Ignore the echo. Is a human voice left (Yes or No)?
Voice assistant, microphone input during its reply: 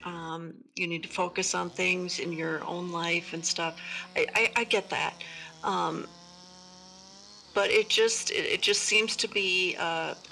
No